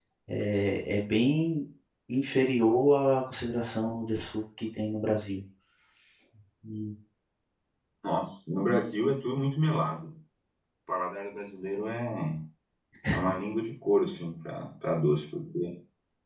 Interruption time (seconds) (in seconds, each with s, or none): none